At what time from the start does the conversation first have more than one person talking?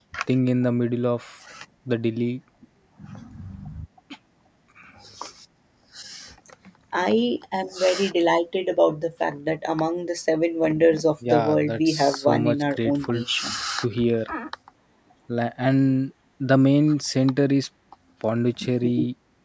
11.2 s

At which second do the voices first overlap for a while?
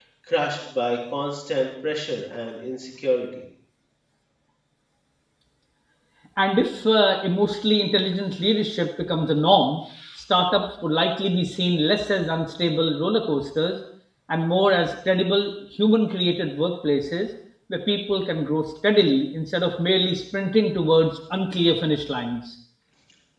none

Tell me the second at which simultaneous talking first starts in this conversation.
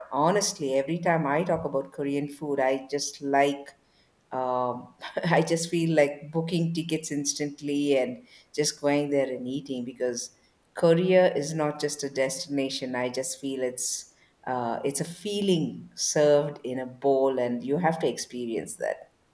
none

